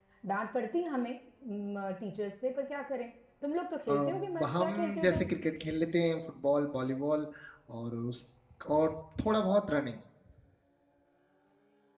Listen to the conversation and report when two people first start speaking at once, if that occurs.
4 s

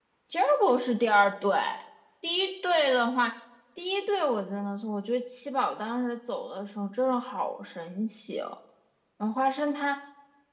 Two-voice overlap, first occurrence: none

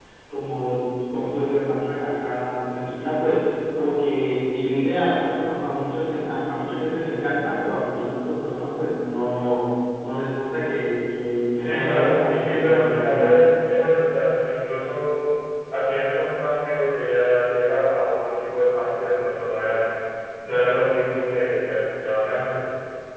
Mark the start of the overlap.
12 s

